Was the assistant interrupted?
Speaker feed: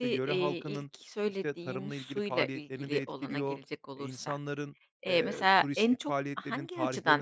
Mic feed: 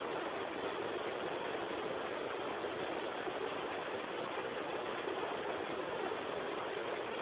No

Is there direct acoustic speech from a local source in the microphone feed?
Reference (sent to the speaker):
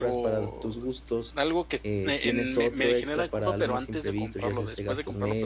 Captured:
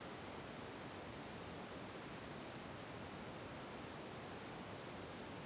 No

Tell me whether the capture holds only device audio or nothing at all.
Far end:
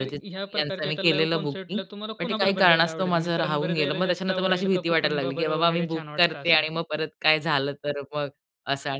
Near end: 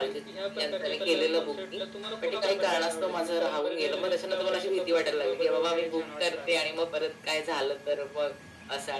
Yes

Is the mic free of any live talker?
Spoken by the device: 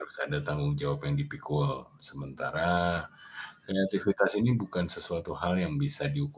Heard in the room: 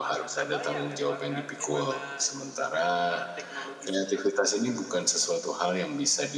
No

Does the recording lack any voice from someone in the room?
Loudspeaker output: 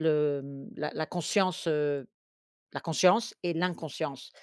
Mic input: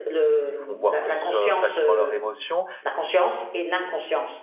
No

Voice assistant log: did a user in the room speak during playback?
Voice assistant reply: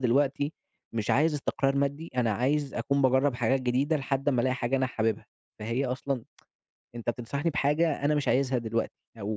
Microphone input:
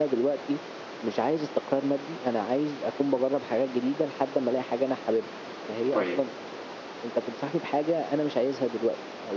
Yes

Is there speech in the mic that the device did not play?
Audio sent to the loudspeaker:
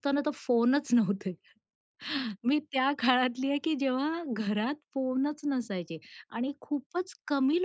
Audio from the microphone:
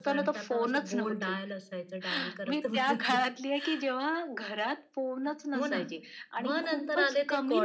Yes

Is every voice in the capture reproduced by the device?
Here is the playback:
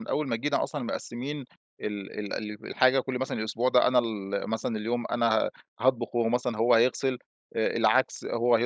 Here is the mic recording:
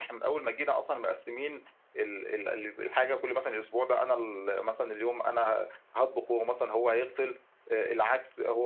Yes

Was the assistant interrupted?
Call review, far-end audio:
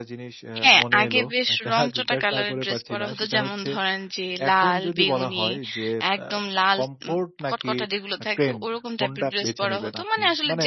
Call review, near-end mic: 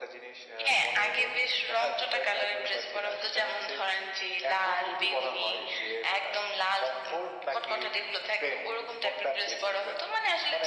No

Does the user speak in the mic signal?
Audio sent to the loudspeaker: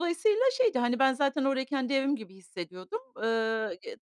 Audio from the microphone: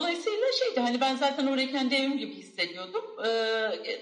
No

